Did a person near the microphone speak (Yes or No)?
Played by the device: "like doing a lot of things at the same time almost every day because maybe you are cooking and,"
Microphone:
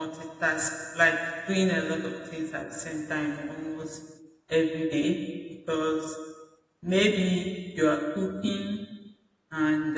No